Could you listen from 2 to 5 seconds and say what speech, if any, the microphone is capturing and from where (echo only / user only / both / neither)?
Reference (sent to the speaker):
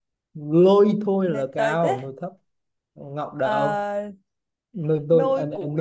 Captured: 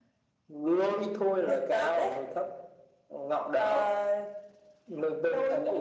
echo only